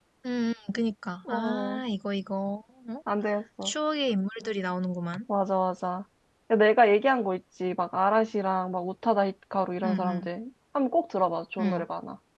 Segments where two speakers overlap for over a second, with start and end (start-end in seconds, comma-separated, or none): none